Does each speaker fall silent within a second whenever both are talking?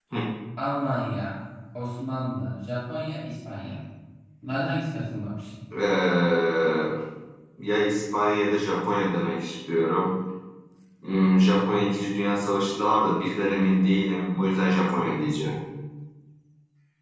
Yes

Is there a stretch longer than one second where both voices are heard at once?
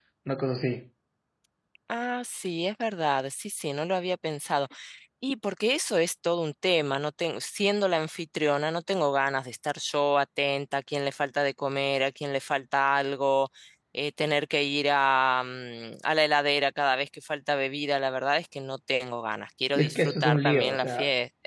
Yes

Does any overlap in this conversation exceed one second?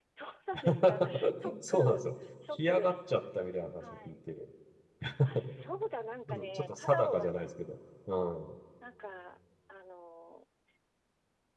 Yes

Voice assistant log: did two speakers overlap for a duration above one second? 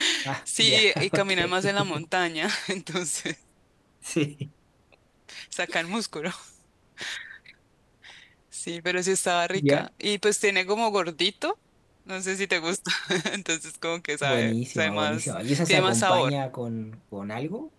Yes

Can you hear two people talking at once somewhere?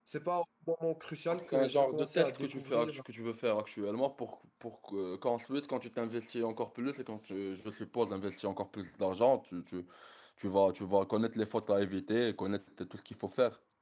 Yes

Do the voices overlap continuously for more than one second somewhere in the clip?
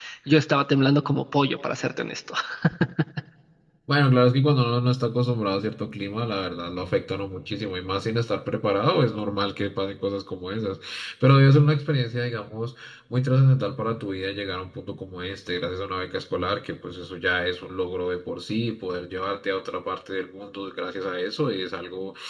No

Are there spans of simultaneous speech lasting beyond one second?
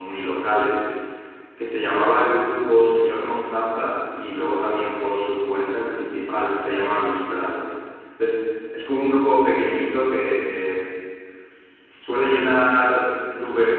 No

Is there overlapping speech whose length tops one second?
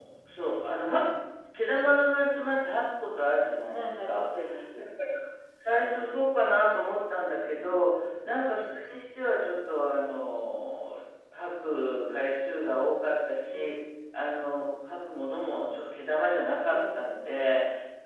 No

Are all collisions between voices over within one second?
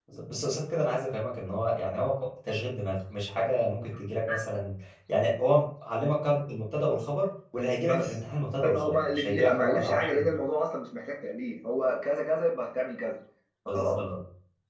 No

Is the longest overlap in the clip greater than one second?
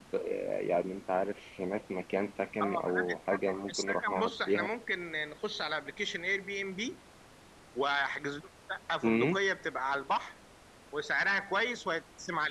Yes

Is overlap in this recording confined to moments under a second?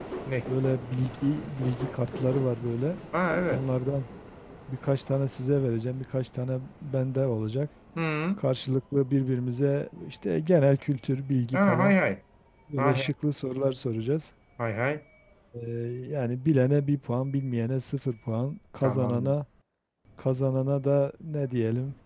Yes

